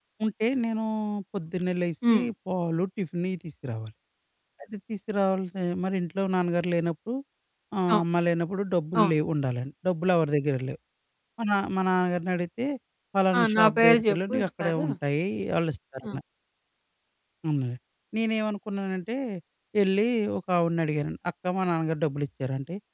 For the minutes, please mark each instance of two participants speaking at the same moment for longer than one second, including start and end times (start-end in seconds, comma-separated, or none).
13.4-14.8